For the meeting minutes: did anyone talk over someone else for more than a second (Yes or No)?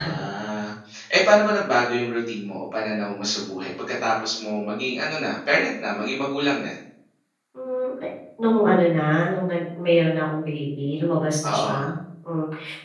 No